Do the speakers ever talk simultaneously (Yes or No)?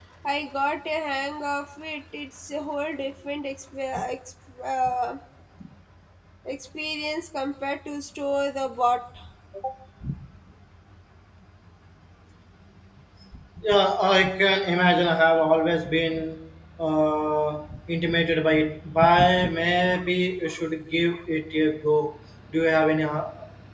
No